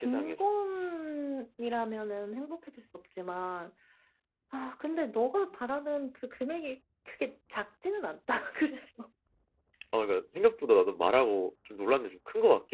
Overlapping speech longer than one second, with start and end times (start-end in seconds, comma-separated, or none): none